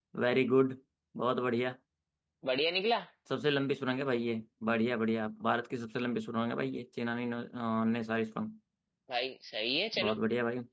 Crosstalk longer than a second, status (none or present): none